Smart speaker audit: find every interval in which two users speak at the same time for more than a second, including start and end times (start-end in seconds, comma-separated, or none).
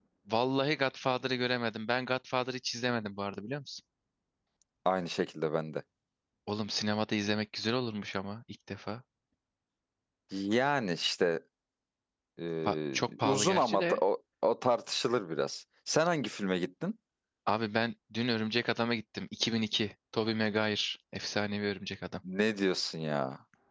12.6-14.0